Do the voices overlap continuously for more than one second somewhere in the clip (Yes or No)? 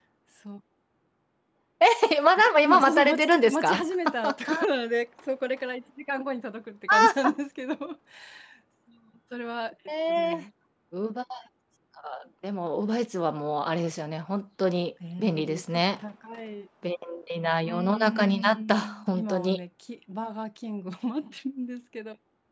Yes